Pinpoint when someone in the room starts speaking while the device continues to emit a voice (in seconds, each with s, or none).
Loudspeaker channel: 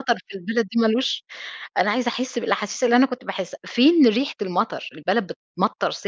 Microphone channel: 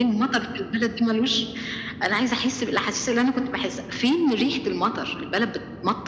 none